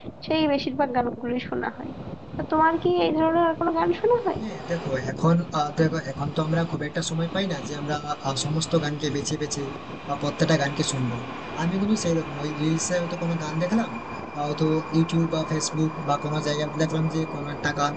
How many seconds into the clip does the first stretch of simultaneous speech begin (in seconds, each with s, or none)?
none